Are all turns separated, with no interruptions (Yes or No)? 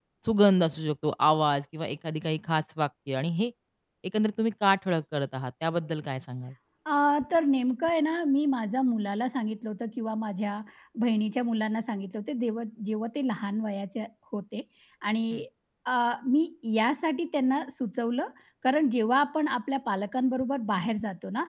Yes